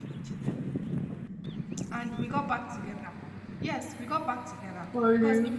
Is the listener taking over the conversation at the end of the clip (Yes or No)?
No